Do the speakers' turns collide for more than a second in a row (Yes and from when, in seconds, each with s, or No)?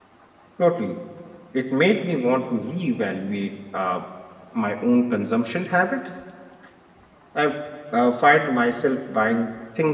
No